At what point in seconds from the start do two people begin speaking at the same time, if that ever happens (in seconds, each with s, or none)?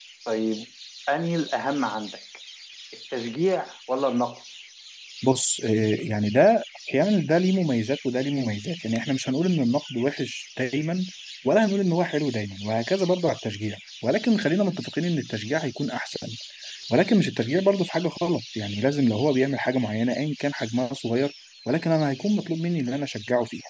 none